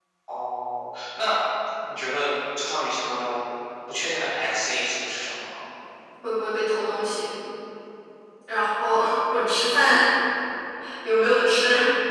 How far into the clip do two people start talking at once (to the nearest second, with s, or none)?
none